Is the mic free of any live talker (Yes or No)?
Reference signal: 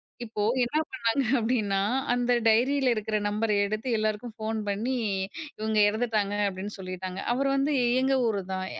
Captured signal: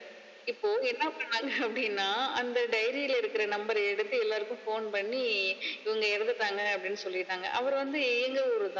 Yes